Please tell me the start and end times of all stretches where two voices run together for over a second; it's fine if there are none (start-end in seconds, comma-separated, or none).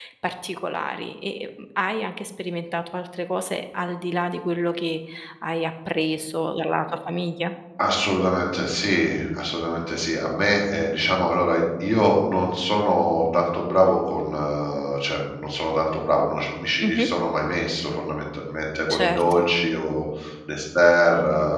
none